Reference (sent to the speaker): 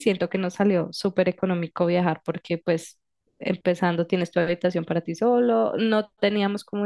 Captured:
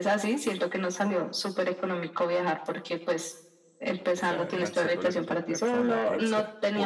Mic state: both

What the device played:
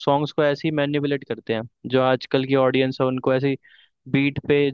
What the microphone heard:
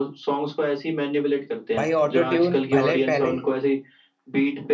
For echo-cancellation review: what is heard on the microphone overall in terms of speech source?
both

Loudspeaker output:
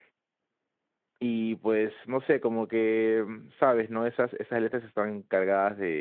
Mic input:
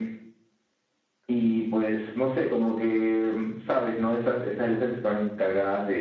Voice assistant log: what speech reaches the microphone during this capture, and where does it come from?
echo only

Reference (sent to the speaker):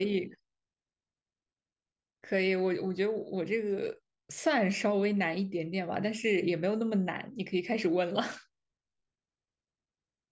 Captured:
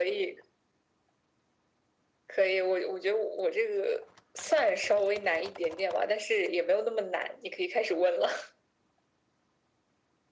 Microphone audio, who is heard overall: echo only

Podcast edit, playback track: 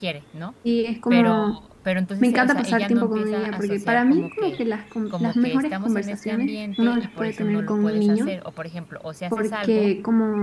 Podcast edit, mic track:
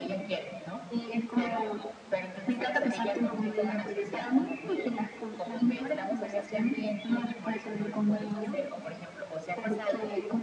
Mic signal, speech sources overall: echo only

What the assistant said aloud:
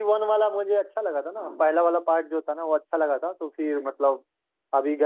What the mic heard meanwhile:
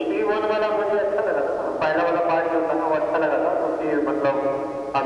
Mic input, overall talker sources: echo only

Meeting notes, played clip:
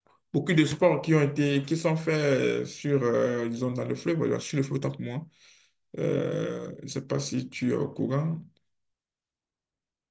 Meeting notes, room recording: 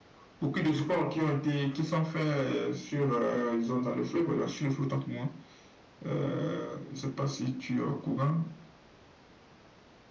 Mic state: echo only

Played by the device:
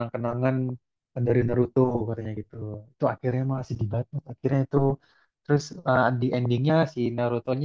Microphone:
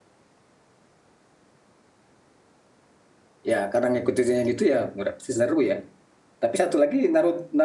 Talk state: user only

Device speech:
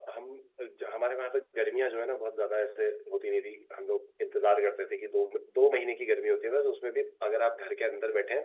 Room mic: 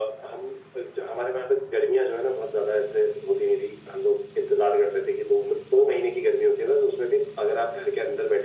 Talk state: echo only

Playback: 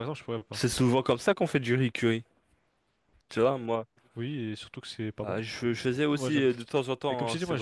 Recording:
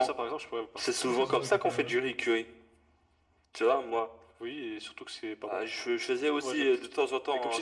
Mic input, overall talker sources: both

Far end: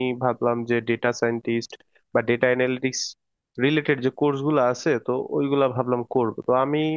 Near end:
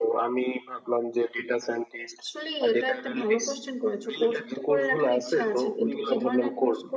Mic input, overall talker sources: both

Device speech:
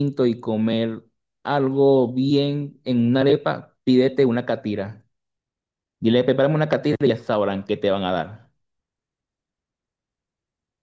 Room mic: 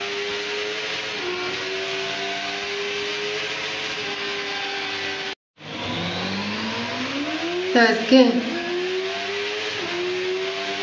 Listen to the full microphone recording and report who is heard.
user only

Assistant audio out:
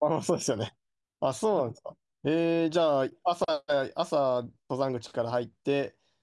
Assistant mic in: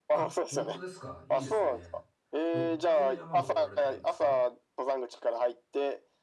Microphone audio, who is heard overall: both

